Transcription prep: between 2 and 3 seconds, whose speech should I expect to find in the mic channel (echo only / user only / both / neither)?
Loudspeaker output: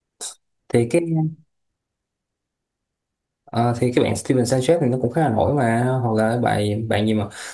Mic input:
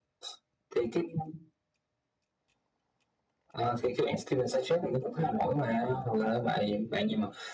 neither